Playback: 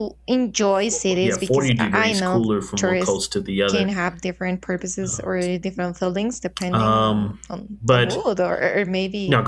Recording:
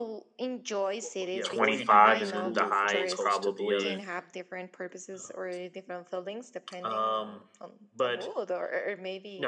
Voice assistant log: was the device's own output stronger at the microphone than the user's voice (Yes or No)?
No